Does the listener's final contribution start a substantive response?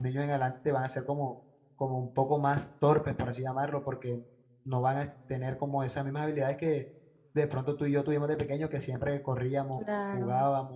No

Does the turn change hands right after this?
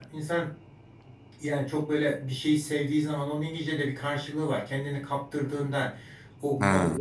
No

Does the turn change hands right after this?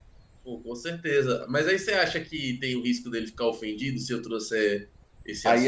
Yes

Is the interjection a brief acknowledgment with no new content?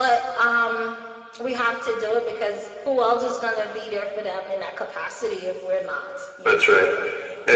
No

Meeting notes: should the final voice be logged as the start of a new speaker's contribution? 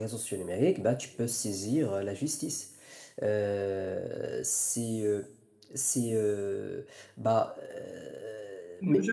Yes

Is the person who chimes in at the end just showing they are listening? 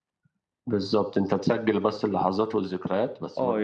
No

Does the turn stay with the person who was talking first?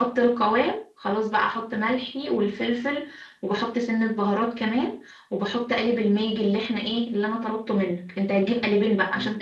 Yes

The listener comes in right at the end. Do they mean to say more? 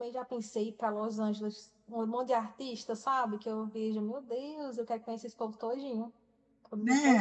Yes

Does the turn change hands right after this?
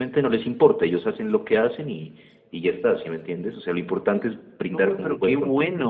Yes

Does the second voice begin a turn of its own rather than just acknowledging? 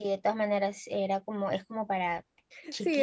Yes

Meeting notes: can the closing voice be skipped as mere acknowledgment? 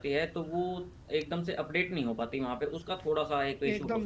No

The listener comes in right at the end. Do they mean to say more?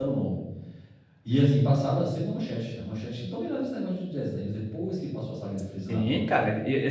Yes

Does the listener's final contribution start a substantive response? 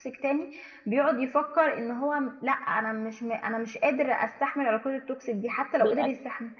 No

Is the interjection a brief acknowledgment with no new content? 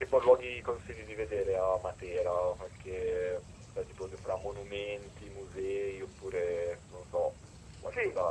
No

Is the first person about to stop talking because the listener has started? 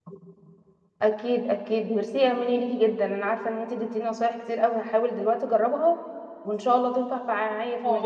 Yes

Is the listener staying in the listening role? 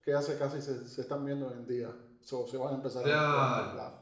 No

